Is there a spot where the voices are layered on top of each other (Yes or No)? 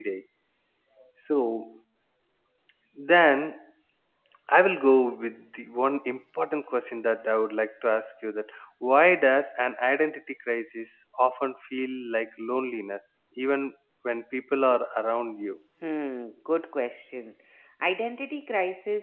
No